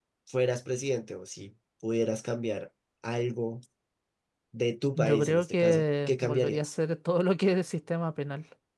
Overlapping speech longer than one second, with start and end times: 5.0-6.7

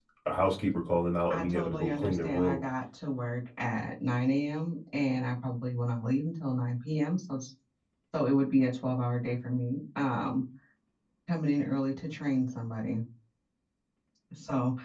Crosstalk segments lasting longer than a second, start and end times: 1.3-2.6

